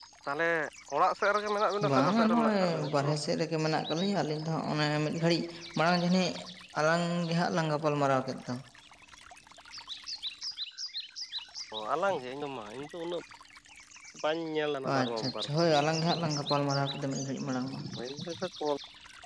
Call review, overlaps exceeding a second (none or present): present